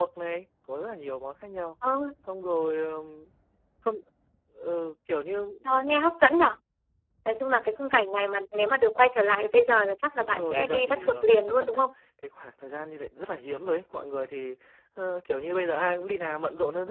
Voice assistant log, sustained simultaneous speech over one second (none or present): present